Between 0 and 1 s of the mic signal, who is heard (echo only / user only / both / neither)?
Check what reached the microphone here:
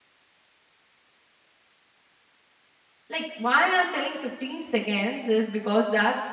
neither